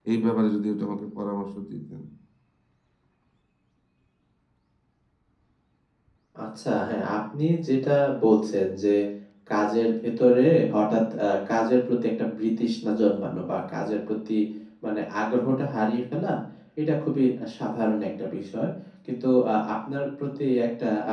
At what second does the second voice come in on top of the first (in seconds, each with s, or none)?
none